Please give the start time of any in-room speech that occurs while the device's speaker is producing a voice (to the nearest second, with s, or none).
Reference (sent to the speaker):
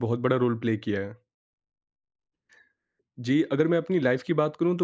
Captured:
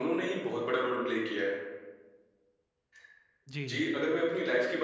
3 s